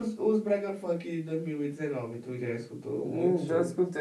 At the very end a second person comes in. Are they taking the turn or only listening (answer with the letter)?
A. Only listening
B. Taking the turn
B